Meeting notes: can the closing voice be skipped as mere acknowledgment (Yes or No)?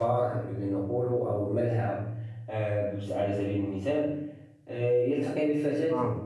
Yes